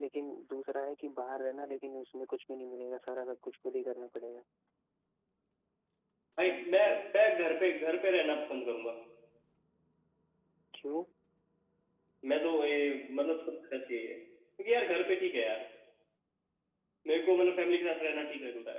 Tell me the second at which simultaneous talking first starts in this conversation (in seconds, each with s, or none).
none